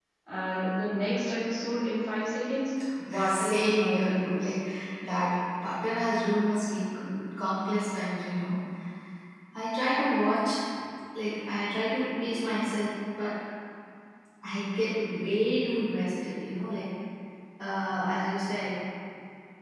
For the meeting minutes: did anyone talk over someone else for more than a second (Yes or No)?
Yes